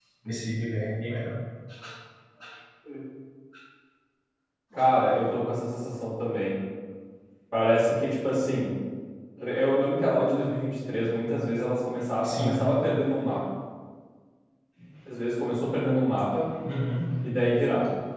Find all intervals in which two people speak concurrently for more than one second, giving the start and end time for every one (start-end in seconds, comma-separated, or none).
none